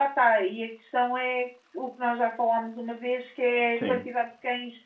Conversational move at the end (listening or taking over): listening